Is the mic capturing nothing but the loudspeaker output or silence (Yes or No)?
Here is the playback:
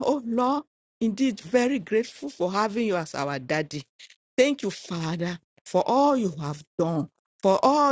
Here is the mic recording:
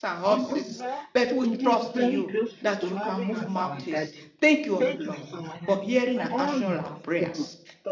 No